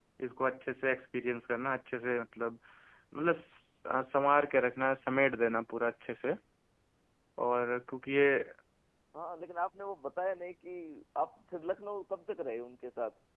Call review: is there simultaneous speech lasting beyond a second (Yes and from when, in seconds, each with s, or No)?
No